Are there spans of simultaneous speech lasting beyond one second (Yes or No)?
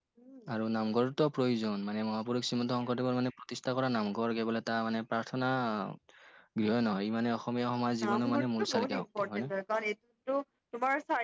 Yes